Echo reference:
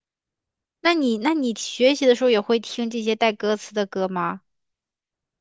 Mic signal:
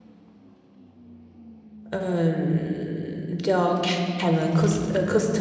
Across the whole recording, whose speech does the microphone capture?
user only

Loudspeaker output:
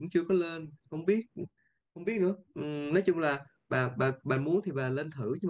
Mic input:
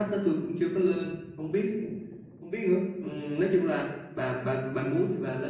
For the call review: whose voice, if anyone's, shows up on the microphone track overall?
echo only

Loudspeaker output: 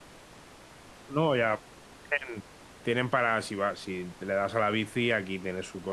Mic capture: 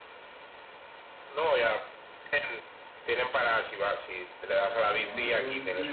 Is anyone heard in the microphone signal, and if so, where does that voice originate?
both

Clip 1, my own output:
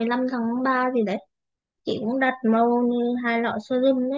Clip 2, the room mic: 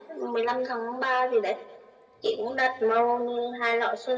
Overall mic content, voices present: echo only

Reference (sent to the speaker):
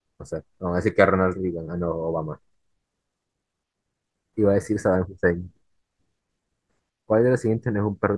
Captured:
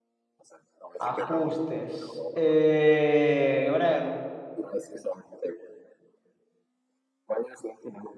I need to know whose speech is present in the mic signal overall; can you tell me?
both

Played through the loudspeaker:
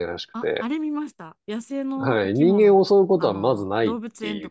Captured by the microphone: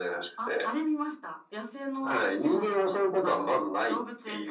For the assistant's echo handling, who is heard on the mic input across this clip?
echo only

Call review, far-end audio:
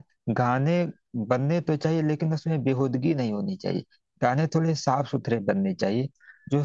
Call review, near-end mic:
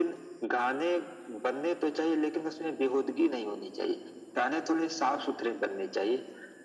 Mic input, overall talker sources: echo only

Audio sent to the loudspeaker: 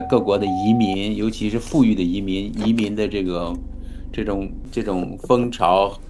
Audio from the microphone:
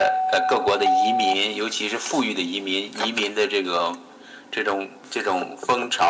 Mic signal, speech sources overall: echo only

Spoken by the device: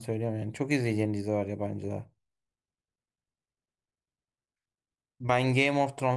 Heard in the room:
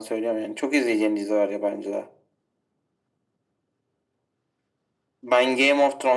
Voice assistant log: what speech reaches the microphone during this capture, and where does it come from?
echo only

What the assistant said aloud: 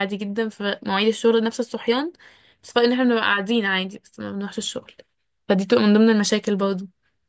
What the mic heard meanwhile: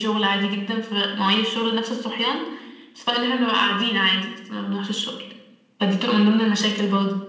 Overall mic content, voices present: echo only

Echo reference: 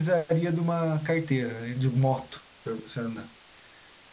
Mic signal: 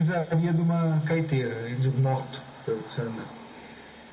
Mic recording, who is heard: echo only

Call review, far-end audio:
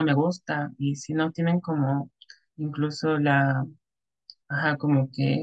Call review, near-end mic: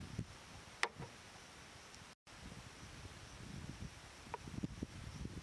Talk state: neither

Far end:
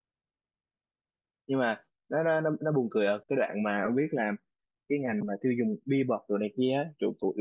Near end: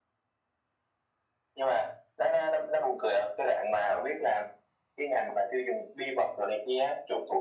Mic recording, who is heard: echo only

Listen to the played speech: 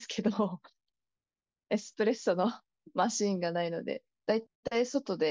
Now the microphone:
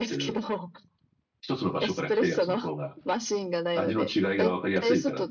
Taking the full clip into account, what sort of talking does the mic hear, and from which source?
both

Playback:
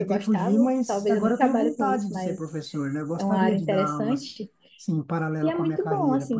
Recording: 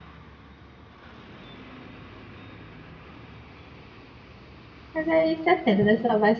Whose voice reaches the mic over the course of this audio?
user only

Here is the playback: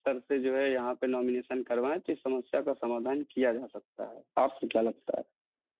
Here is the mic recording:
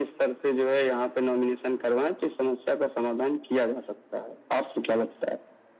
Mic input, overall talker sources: echo only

